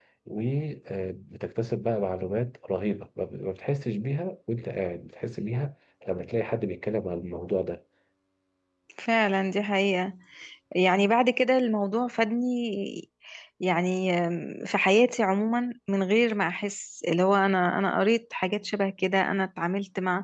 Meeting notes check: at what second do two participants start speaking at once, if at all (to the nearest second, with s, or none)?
none